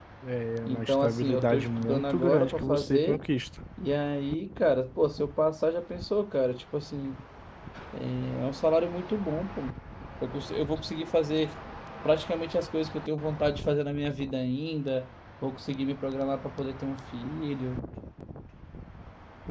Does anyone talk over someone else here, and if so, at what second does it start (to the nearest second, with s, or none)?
1 s